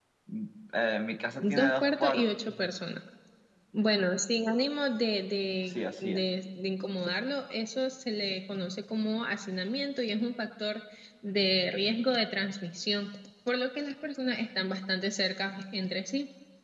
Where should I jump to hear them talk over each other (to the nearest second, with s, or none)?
1 s